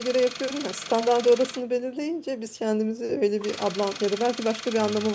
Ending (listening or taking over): listening